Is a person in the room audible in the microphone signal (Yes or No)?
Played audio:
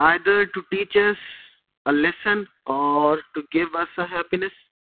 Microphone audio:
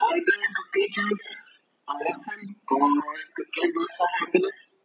No